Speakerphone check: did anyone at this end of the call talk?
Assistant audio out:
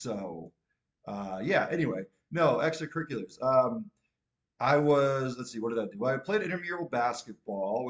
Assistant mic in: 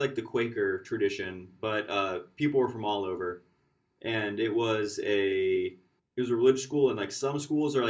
Yes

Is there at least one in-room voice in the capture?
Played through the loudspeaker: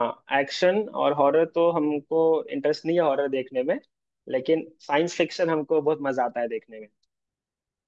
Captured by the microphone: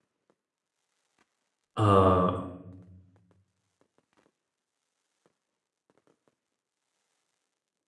Yes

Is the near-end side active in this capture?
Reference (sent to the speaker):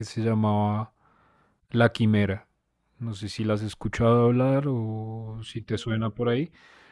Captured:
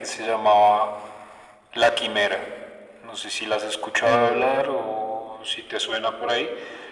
Yes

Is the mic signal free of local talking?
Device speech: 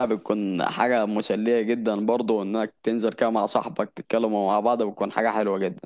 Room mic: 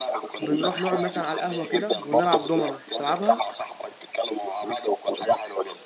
No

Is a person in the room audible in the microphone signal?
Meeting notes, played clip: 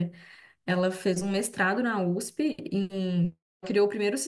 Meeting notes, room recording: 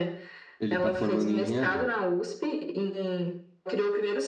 Yes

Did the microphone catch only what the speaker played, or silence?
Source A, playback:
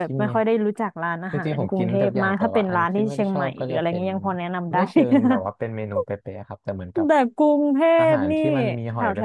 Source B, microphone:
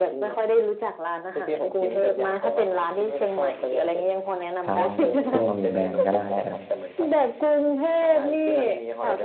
No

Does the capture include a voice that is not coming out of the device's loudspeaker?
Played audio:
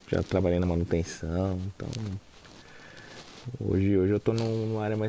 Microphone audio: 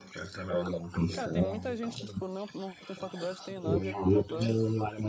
Yes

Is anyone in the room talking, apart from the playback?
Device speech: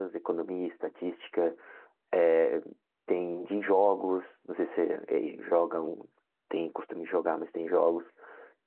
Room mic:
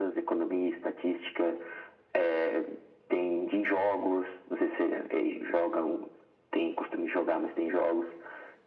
No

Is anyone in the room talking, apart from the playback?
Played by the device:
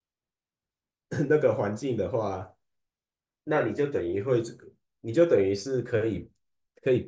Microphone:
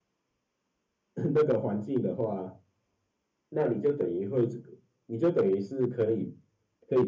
No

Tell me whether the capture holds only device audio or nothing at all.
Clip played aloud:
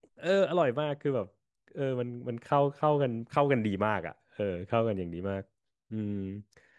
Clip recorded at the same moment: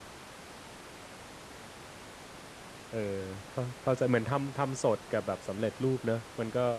No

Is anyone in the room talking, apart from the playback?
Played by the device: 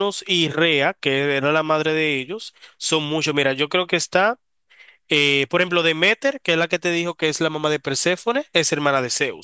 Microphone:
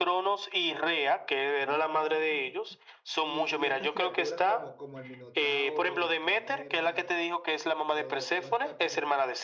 Yes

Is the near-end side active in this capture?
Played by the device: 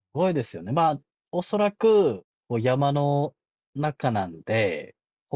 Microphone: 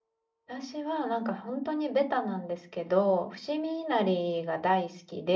Yes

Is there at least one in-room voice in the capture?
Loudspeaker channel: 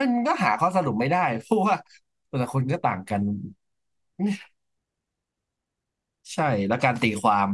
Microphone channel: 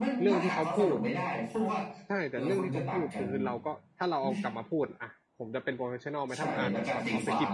Yes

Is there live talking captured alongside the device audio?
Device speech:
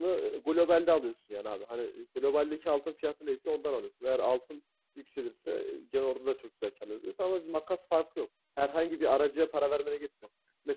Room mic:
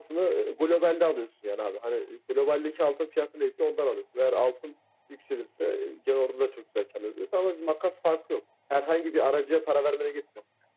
No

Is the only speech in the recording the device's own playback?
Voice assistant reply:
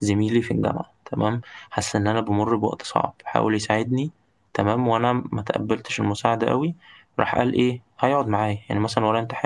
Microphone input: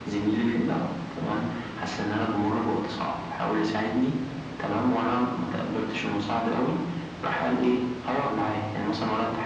Yes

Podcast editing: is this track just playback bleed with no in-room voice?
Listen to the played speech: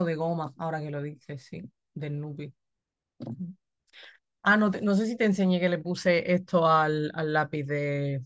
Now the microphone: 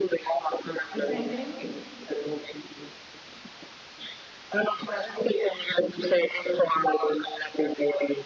No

